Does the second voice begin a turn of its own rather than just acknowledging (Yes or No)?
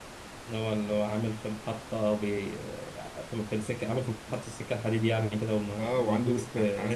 Yes